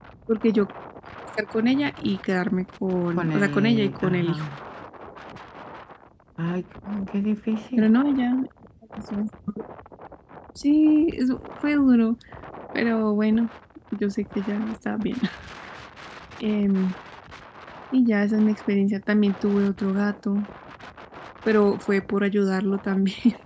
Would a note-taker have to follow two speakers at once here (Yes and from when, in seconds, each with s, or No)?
Yes, from 3.2 s